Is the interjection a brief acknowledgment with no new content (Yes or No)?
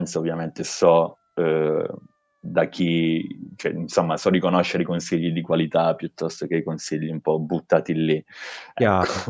No